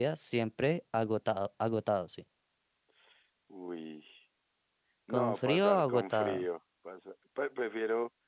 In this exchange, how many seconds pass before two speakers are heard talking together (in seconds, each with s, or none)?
5.1 s